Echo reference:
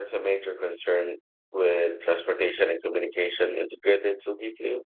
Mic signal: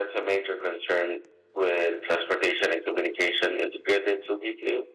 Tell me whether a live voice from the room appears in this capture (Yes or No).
No